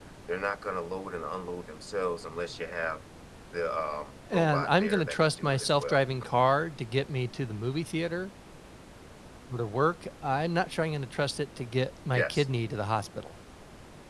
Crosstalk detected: Yes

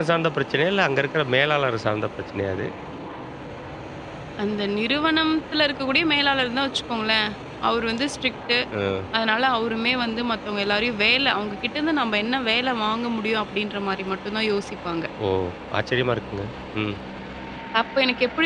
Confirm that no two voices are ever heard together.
Yes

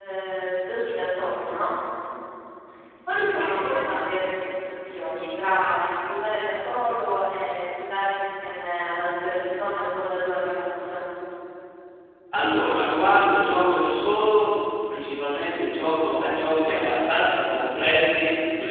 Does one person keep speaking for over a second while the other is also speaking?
No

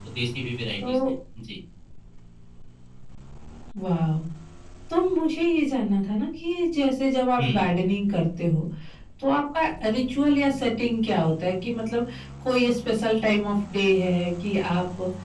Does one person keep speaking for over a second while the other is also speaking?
No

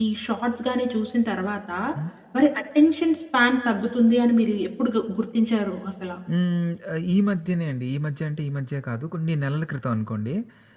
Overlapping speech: No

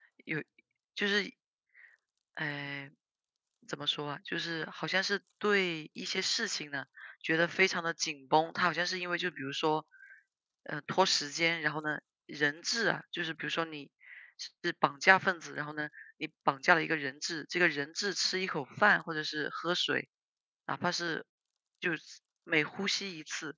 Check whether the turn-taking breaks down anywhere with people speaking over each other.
No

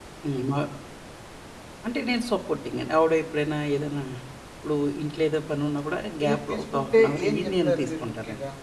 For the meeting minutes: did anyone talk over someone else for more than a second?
Yes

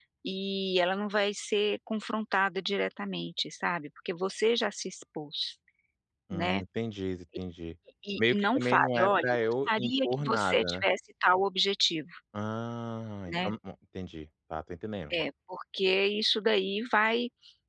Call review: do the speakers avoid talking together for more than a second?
No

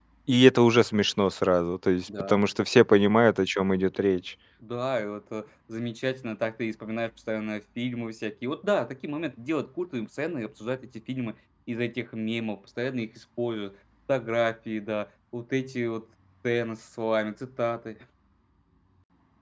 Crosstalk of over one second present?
No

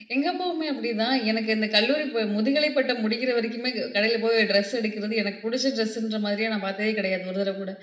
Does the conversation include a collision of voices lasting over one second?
No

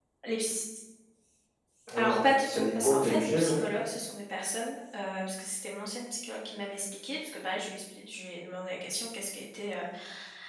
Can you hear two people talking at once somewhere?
Yes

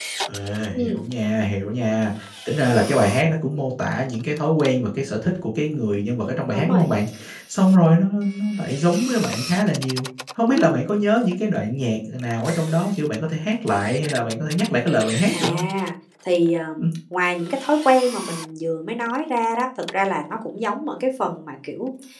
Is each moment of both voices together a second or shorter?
Yes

